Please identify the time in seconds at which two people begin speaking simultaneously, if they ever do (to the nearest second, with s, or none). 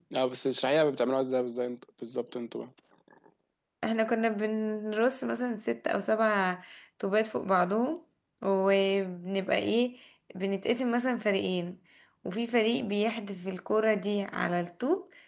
none